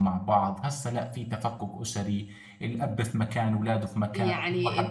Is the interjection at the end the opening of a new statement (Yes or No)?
Yes